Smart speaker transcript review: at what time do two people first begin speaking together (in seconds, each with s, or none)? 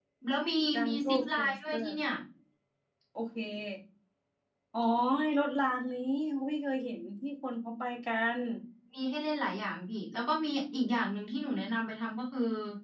0.7 s